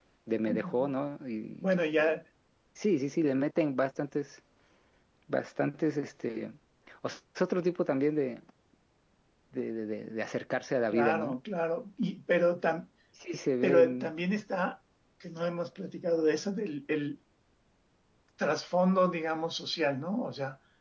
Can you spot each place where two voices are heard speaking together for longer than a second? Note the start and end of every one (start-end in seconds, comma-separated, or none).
none